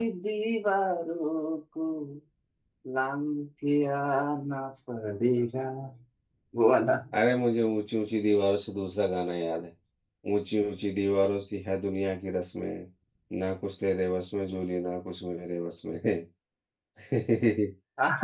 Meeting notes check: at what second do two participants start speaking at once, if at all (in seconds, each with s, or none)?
none